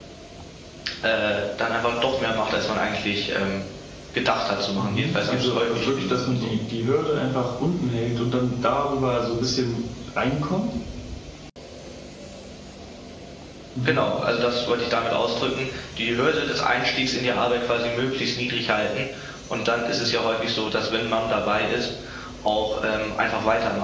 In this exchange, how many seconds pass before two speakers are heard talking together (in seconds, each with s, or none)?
4.8 s